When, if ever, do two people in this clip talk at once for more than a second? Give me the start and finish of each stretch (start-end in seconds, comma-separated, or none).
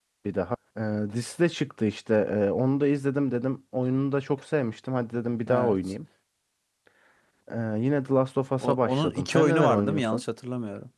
8.6-10.2